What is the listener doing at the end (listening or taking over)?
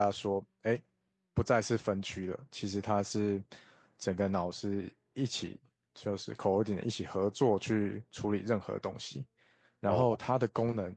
listening